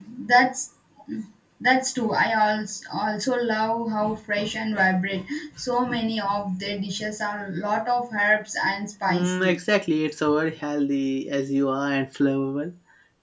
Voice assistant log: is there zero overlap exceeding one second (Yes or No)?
Yes